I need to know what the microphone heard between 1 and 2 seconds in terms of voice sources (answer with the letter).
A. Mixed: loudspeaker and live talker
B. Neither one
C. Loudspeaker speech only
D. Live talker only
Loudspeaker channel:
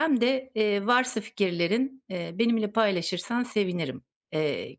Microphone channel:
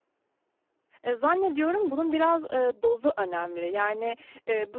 D